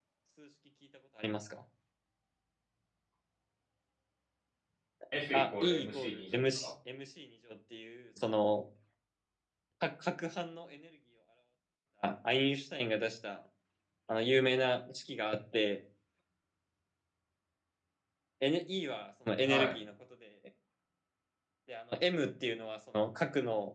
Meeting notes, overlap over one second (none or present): present